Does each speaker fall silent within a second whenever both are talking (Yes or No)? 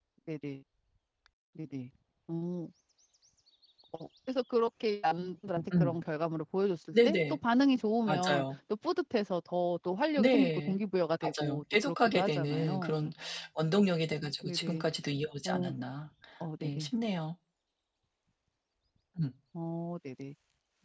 No